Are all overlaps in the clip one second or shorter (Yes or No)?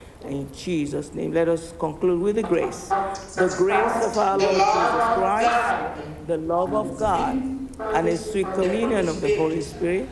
No